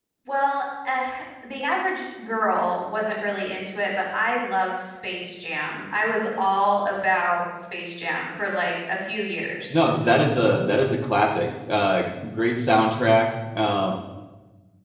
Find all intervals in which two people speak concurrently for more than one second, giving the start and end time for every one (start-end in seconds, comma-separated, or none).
none